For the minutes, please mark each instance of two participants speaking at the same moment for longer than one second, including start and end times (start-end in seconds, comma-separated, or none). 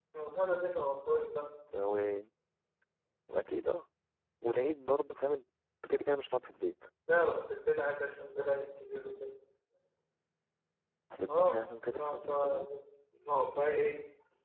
11.3-12.6